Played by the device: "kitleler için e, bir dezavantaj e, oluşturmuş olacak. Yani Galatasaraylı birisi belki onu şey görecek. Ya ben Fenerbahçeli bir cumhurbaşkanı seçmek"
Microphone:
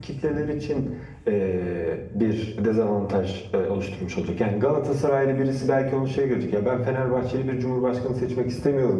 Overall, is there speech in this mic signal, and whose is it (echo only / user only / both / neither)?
echo only